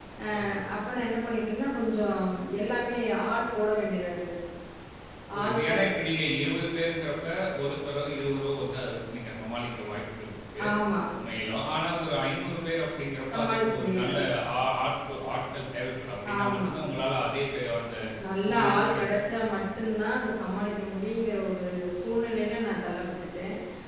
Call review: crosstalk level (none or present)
present